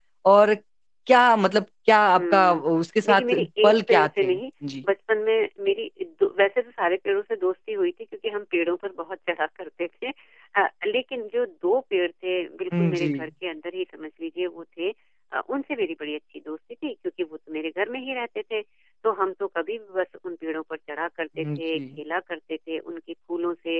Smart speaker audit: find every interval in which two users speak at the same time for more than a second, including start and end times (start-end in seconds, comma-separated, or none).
3.1-4.4